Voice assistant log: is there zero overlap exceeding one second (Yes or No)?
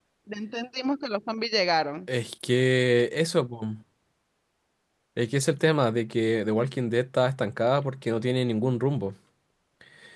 Yes